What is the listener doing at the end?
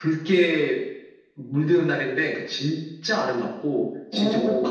taking over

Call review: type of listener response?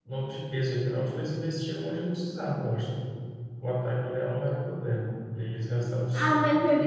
taking over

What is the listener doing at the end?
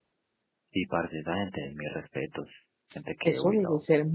taking over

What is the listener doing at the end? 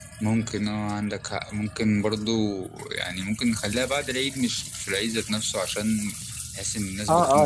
taking over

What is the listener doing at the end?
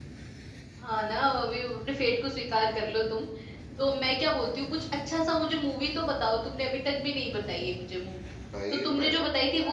listening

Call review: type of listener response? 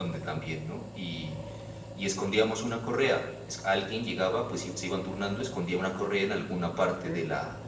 listening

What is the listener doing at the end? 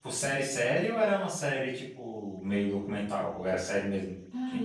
taking over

